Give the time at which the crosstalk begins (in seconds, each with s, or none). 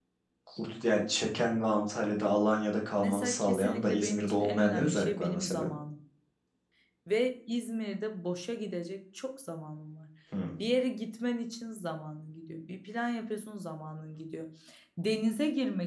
3.0 s